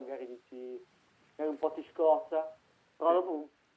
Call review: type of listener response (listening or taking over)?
listening